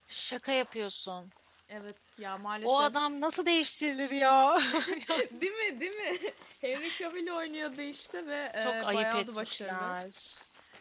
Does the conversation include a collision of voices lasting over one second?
Yes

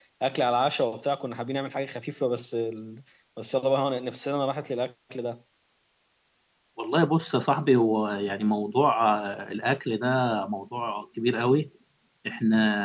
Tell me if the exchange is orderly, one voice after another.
Yes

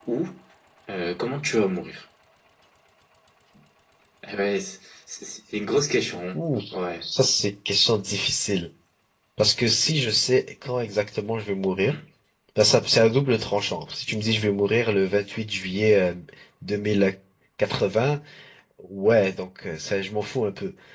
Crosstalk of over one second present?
No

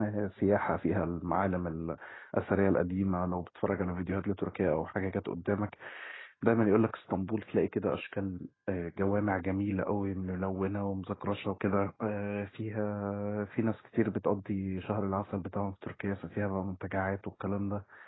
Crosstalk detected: No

